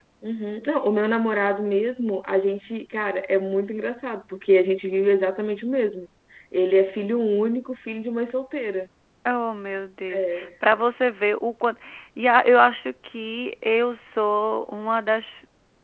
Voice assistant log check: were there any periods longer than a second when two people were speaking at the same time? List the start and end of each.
none

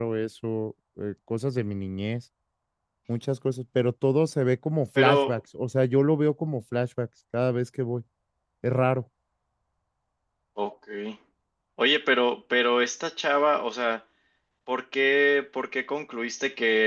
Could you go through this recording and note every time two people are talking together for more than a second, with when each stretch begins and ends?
none

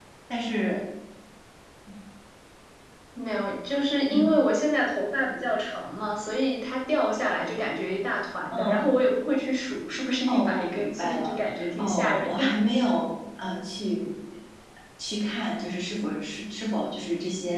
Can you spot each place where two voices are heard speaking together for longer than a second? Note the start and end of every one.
10.3-12.5

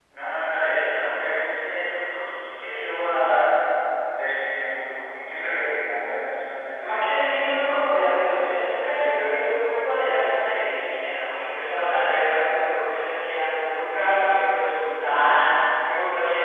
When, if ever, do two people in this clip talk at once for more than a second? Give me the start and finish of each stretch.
6.8-8.7

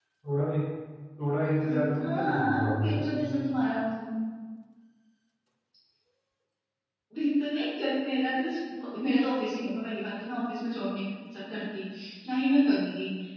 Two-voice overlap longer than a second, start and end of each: 1.7-3.5

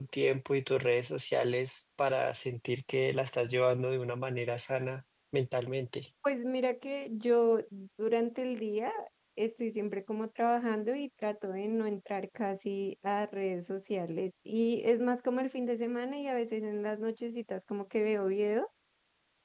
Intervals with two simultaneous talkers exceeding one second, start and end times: none

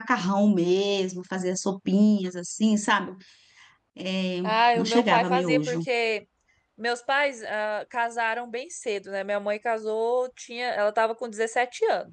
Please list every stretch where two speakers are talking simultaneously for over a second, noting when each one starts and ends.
4.4-5.8

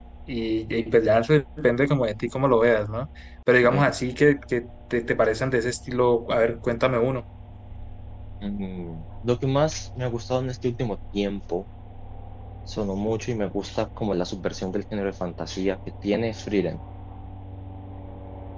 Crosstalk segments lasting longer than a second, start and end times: none

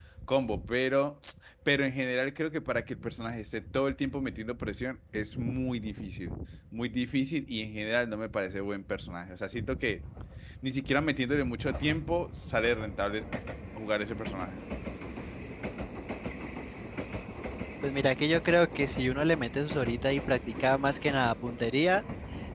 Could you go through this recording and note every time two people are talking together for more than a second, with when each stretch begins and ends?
none

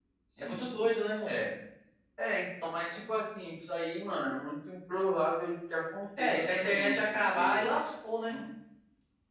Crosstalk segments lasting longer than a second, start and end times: 6.2-7.7

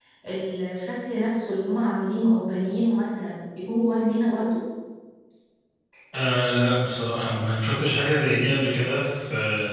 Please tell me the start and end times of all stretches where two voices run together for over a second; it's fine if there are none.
none

